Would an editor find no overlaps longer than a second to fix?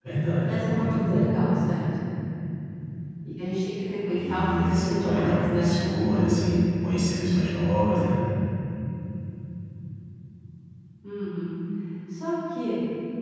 No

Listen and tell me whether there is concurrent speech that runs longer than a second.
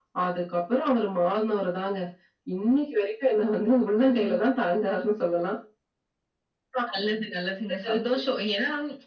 No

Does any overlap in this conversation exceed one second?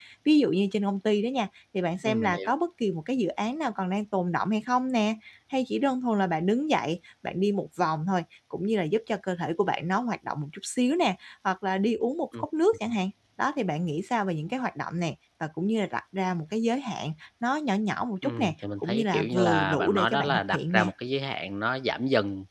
Yes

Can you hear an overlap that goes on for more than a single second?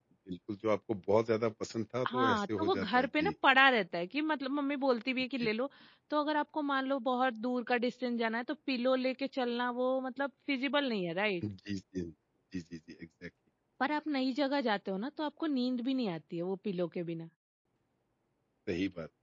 Yes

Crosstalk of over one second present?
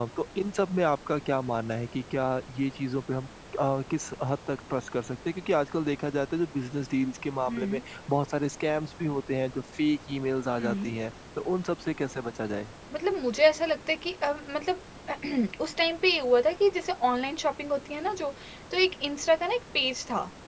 No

